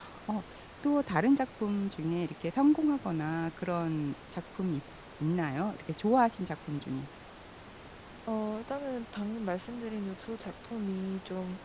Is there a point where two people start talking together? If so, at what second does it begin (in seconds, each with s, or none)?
none